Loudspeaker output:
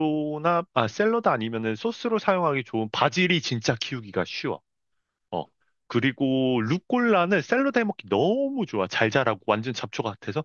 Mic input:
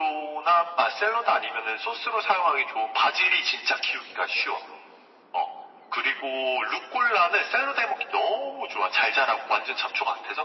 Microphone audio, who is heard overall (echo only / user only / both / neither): echo only